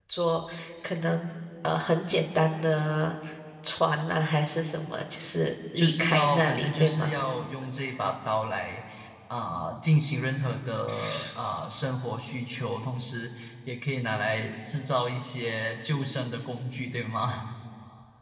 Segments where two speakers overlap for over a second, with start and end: 5.8-7.1

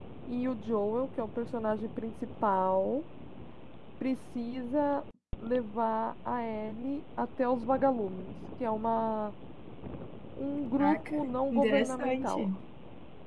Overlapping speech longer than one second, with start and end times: 10.8-12.5

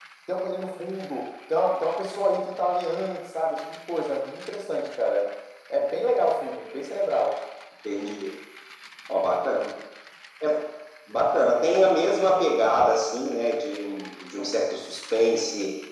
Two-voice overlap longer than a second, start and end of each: none

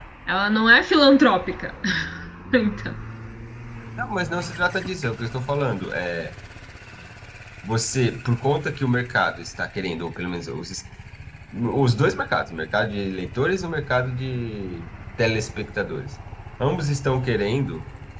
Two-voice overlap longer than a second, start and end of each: none

